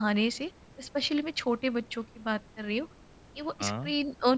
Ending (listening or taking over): listening